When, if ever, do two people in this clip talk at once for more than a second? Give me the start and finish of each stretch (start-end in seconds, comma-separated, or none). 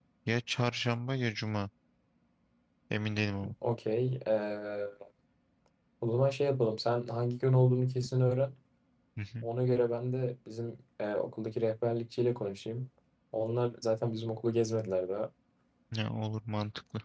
none